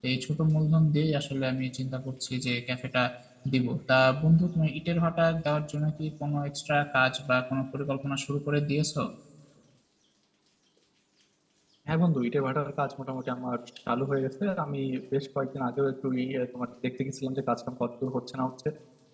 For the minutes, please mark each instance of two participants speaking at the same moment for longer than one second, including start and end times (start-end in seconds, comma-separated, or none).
none